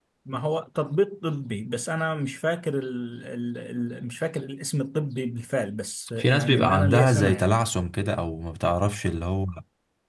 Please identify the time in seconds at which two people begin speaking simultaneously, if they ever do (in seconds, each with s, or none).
6.2 s